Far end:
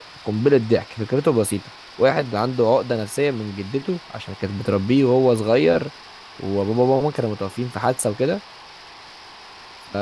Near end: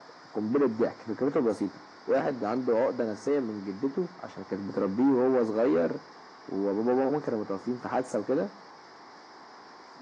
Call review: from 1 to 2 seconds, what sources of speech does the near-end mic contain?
echo only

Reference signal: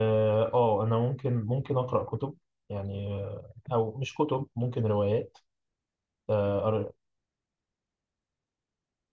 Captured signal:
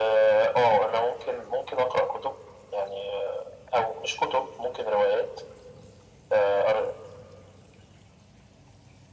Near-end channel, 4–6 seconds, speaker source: echo only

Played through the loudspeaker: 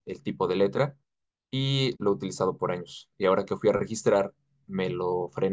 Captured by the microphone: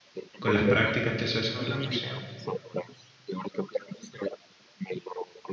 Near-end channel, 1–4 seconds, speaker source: both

